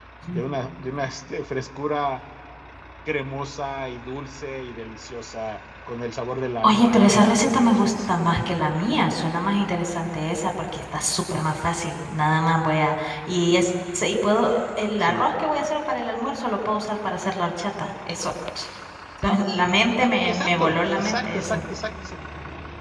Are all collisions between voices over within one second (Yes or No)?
No